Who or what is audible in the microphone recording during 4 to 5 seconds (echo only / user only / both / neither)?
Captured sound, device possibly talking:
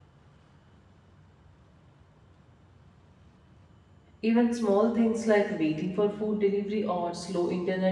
user only